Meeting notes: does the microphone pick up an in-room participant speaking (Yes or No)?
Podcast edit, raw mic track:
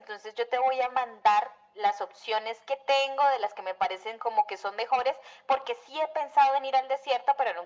No